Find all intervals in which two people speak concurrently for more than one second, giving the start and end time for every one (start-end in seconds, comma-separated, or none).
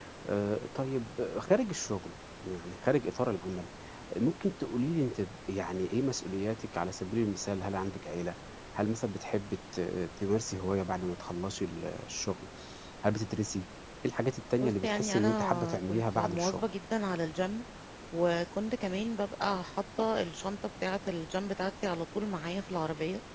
14.6-16.6